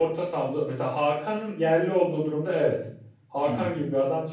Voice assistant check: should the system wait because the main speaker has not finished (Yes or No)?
Yes